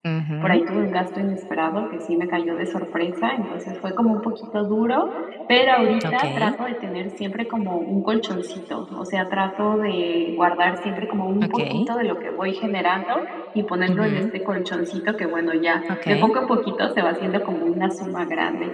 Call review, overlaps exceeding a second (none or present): none